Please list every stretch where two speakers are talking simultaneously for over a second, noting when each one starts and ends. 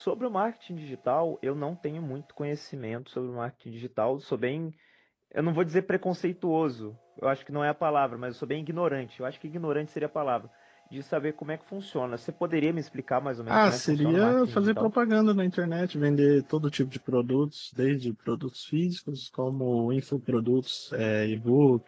13.5-14.9

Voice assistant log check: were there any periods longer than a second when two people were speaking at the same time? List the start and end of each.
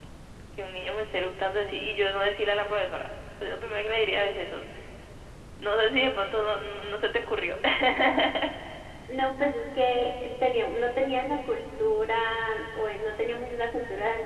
none

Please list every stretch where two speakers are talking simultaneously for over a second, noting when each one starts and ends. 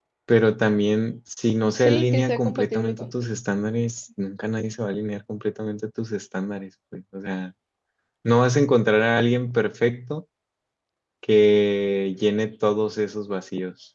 1.8-3.1

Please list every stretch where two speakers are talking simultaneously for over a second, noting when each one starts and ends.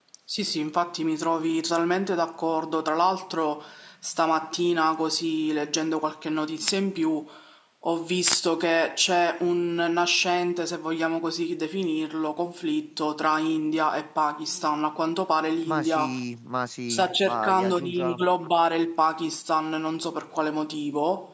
16.9-18.2

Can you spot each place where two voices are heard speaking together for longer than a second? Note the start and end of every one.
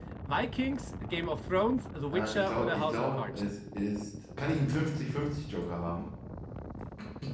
2.1-3.4

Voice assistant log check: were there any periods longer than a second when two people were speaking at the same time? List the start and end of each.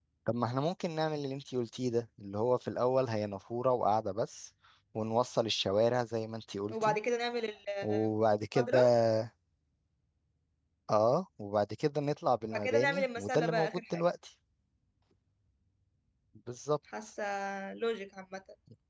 12.4-14.0

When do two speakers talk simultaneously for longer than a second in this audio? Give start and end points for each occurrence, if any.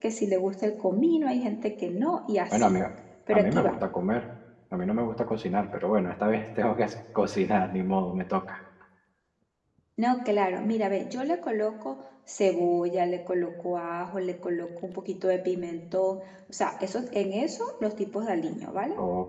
none

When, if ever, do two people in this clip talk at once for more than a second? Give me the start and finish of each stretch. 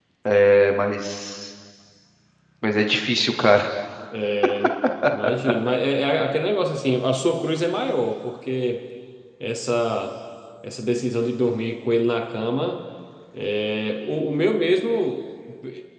none

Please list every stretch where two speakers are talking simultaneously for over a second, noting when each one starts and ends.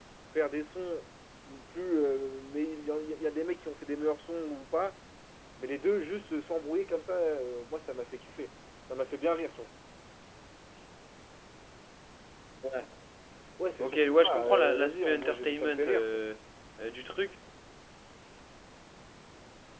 13.8-16.2

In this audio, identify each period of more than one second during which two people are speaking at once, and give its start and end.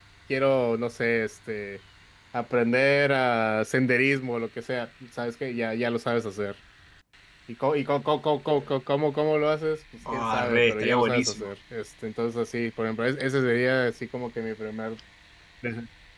10.1-11.5

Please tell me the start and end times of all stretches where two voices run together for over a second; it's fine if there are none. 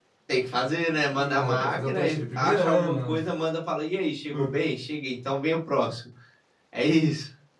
1.2-3.0

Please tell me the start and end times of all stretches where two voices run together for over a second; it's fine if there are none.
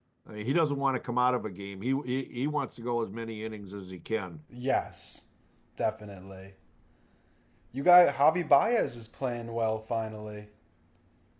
none

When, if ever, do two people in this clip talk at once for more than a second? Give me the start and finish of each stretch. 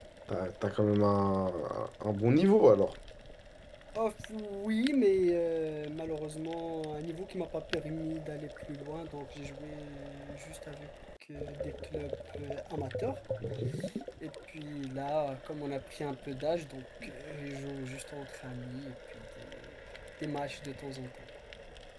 none

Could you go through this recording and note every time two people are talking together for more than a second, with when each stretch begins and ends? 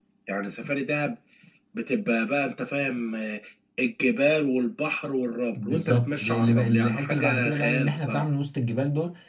5.6-8.3

